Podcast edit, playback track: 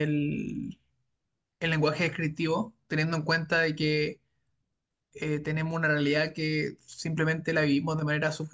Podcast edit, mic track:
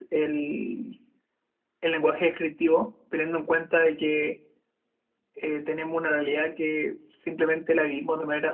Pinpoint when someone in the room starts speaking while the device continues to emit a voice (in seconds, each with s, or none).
none